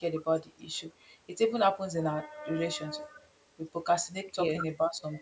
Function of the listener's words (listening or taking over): listening